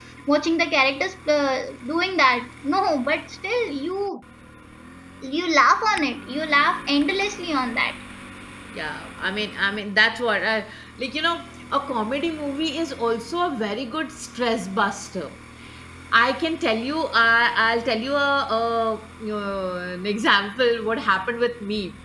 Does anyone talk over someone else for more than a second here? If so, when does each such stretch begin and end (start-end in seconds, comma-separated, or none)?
none